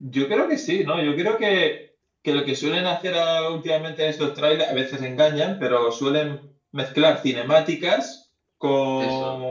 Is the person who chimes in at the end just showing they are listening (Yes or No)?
Yes